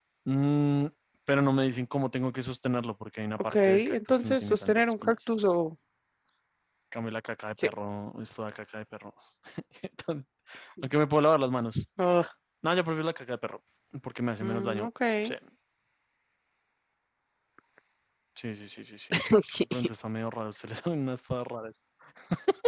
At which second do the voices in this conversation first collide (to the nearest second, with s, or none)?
4 s